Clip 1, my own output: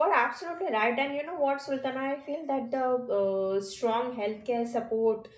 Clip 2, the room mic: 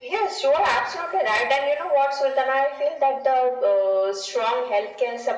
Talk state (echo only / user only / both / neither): echo only